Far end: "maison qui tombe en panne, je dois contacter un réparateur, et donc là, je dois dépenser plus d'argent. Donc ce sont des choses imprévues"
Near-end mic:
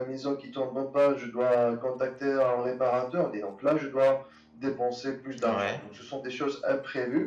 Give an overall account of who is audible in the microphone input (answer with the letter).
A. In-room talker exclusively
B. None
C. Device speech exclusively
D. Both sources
D